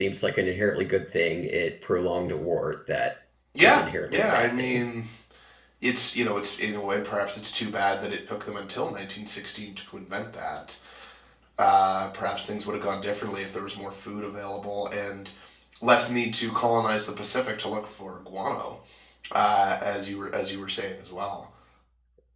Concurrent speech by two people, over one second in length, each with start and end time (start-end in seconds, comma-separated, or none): 3.6-4.8